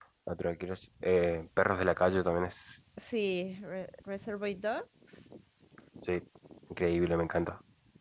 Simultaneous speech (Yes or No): No